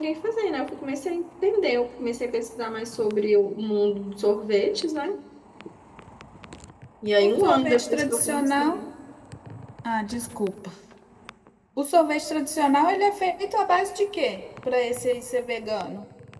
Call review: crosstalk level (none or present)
present